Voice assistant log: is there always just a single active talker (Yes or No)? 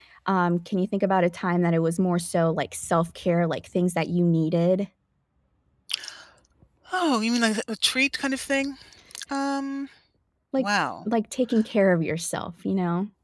Yes